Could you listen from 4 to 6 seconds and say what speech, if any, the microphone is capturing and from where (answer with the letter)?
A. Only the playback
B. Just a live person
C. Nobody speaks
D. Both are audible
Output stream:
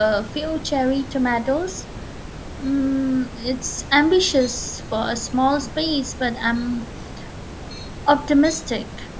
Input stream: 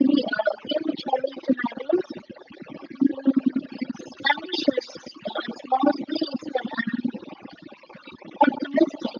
A